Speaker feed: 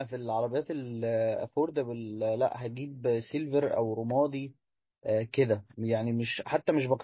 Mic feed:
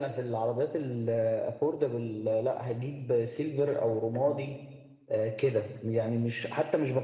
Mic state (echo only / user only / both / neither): echo only